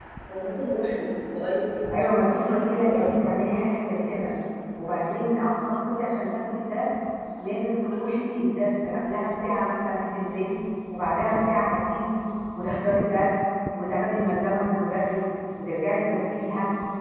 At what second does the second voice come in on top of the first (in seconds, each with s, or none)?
1.9 s